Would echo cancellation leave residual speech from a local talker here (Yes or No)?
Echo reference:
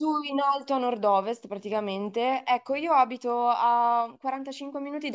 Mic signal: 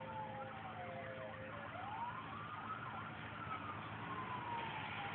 No